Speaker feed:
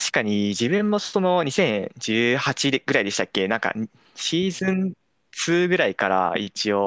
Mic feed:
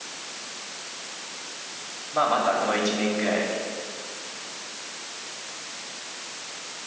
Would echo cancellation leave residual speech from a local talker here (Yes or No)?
Yes